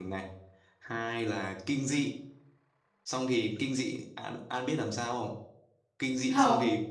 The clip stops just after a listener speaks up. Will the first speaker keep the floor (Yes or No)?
Yes